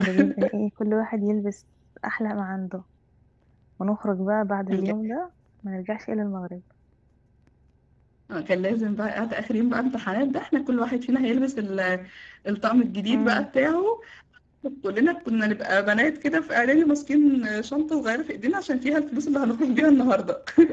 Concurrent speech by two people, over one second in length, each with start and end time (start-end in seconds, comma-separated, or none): none